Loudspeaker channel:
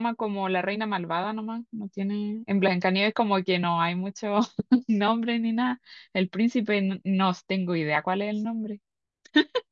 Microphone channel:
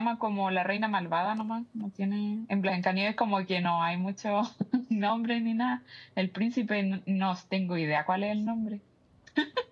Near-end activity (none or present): none